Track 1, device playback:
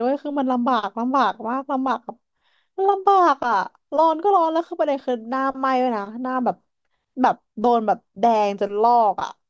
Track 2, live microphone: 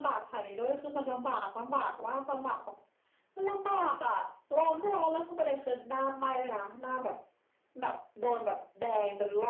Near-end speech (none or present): none